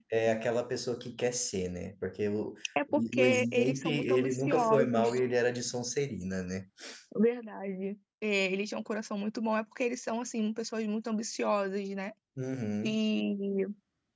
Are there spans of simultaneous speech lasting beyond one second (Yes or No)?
Yes